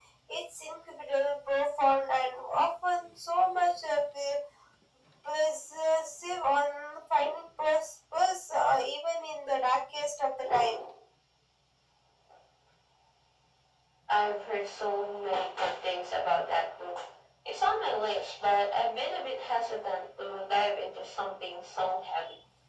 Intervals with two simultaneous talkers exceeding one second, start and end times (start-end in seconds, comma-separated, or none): none